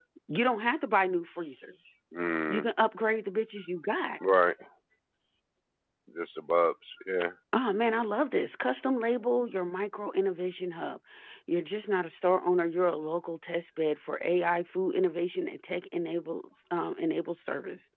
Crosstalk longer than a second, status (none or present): none